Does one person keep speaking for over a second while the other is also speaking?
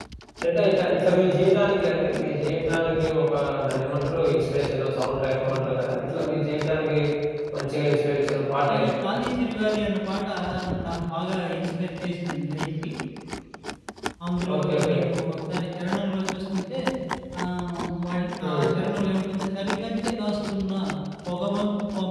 No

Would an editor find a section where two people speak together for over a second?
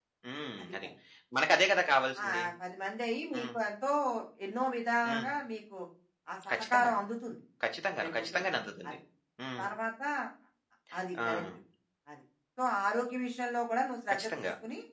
No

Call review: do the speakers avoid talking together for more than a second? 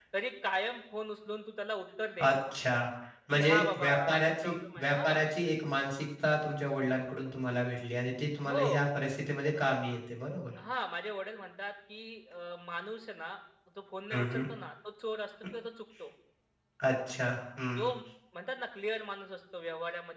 No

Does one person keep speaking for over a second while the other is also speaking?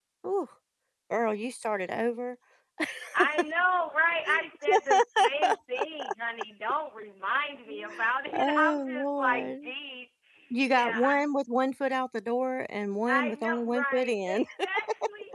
Yes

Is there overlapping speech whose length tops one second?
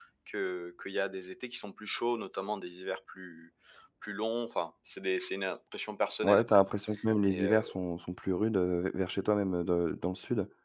No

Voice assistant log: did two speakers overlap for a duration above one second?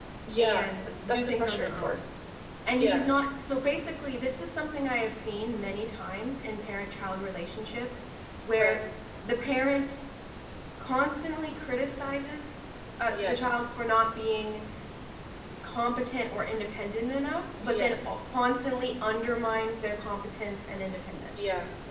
Yes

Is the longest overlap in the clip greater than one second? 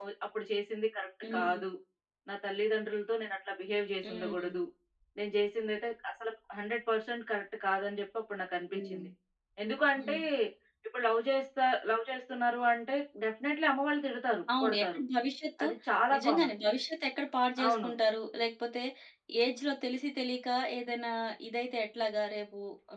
No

